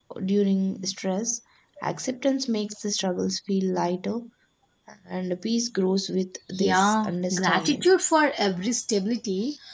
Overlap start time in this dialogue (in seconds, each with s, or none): 6.6 s